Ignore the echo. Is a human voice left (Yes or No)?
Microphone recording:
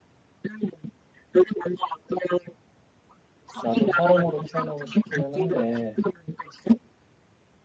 Yes